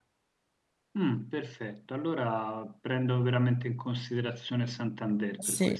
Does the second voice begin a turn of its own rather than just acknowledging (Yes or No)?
Yes